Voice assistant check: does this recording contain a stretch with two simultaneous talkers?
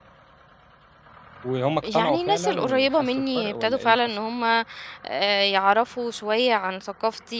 Yes, from 1.8 s

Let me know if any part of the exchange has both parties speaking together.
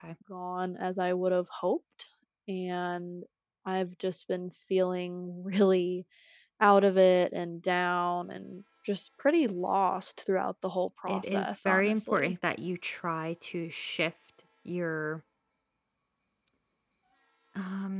Yes, from 11.1 s

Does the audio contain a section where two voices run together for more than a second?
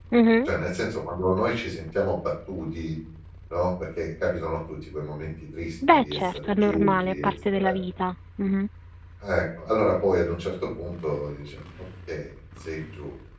Yes, from 5.8 s

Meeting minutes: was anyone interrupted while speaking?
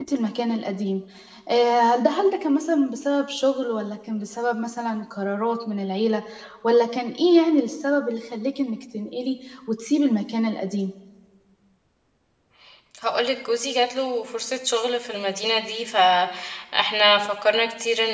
No

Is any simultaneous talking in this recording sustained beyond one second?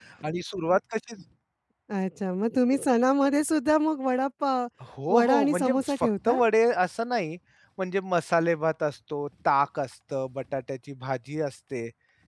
Yes, from 5.1 s

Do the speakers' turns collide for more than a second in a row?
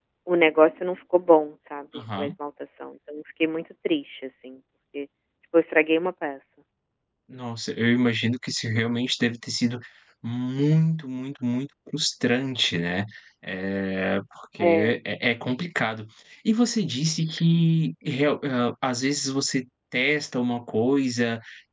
No

